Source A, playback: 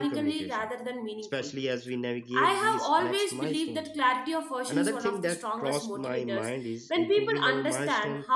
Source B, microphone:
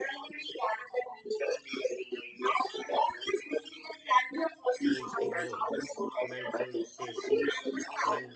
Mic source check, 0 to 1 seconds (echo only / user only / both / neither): echo only